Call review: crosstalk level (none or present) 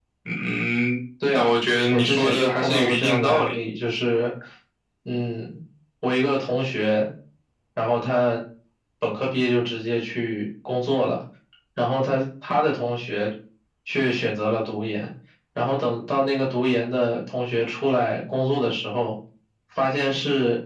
present